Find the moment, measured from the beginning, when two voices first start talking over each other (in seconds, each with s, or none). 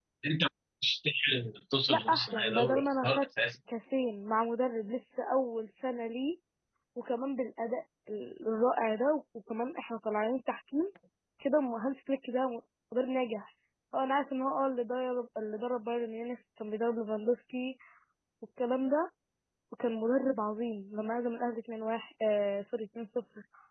1.9 s